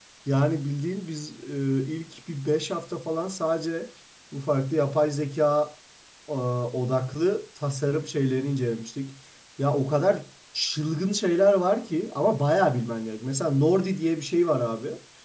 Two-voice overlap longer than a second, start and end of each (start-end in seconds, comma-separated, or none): none